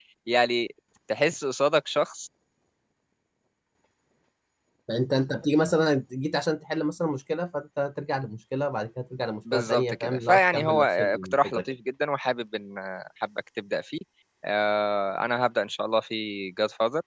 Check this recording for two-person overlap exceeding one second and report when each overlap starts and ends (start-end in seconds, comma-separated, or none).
9.5-11.6